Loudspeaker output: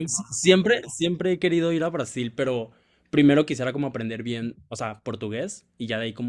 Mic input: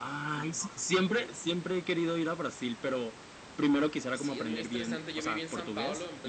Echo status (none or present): present